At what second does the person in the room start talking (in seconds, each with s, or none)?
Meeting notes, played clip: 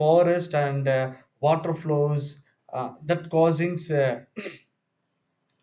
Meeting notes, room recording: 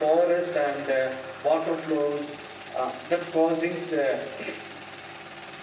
none